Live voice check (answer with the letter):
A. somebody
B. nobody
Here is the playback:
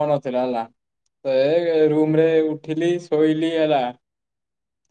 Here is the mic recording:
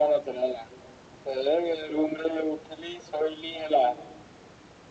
B